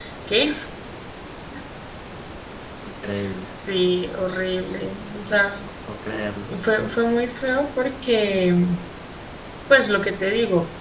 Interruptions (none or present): none